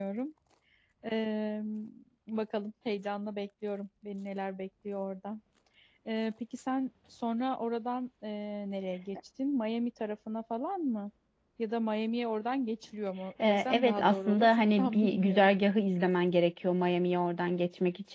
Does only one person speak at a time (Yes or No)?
No